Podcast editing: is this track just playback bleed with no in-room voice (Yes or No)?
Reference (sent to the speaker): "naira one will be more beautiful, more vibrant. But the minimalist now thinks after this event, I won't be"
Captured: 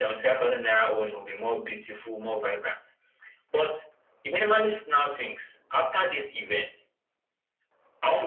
Yes